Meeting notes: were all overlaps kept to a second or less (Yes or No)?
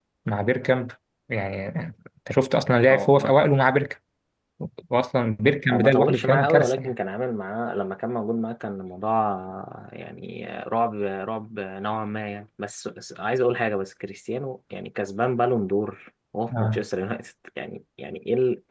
No